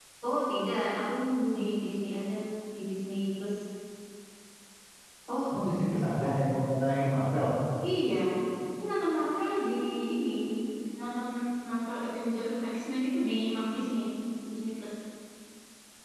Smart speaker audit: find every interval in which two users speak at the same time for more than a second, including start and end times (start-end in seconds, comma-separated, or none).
none